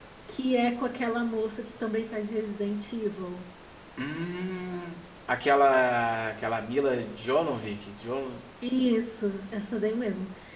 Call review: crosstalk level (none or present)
none